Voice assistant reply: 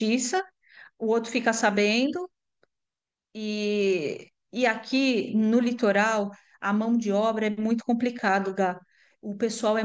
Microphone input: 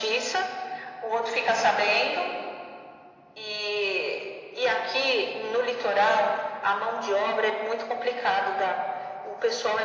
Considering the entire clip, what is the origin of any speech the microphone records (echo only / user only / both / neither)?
echo only